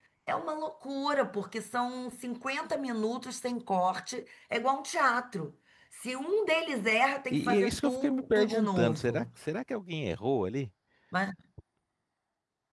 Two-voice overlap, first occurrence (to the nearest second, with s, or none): 7 s